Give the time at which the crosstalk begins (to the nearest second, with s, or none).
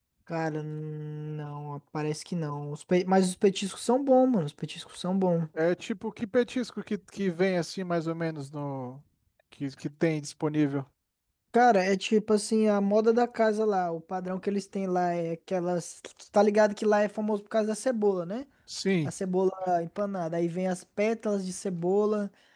none